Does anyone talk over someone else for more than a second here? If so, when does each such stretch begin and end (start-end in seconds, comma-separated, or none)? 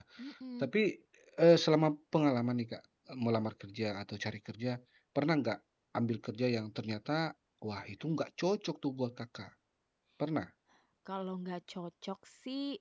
none